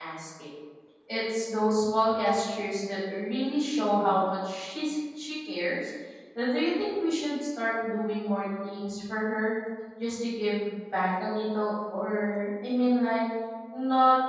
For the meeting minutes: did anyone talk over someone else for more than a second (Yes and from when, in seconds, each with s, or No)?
No